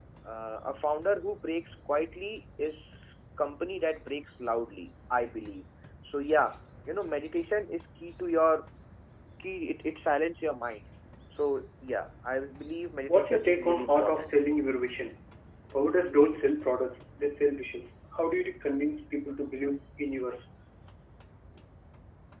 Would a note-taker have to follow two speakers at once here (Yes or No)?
Yes